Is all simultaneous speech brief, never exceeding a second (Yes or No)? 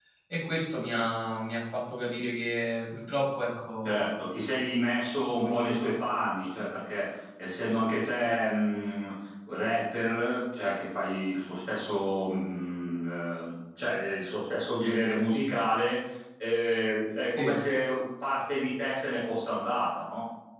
Yes